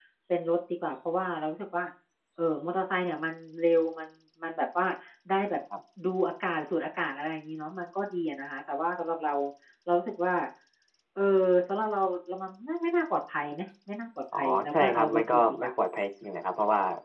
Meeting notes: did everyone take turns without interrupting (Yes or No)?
No